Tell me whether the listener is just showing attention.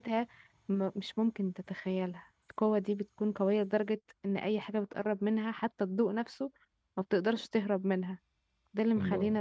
Yes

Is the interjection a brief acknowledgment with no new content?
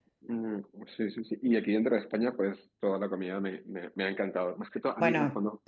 Yes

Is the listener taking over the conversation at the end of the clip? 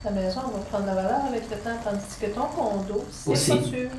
Yes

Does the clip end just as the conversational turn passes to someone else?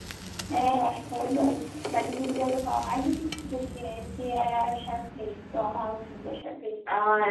Yes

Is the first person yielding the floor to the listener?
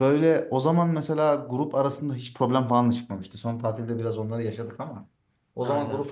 No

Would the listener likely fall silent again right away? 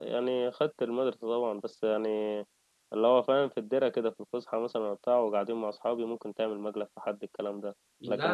No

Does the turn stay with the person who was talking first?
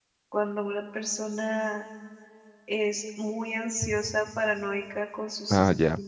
Yes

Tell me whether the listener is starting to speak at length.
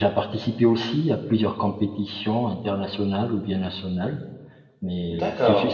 No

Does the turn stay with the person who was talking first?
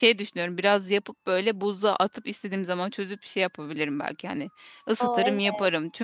Yes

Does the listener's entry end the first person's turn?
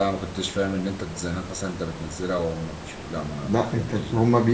Yes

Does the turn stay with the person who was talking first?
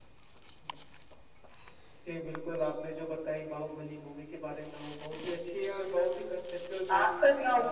No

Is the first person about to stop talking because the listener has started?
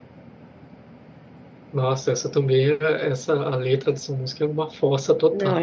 Yes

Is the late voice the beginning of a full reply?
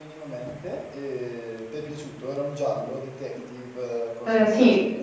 Yes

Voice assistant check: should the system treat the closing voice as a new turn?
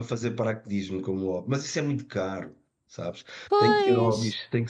No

